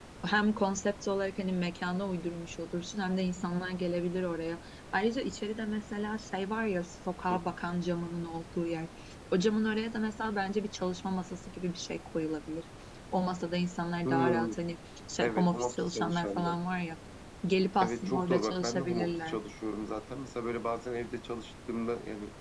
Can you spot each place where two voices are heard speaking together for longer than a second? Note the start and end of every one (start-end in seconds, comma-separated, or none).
15.2-16.6, 17.8-19.4